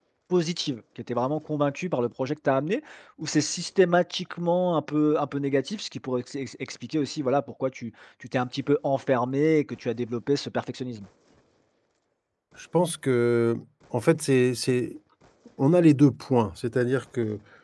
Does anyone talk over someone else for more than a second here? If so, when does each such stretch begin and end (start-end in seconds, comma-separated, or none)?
none